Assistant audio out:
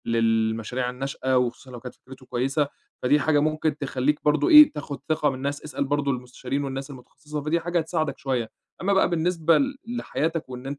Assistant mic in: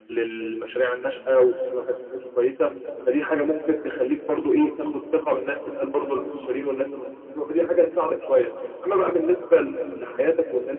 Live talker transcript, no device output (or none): none